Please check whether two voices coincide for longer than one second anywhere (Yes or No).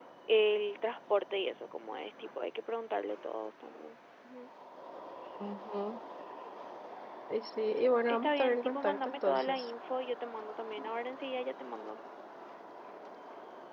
Yes